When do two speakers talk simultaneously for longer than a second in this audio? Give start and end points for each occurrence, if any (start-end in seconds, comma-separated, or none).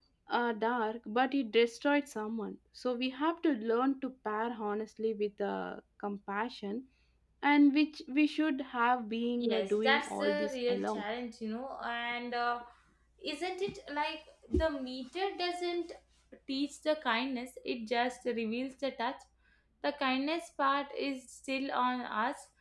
9.4-11.0